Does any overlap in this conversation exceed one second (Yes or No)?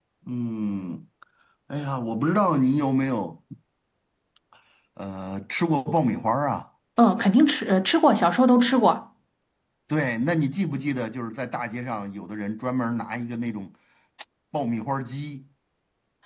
No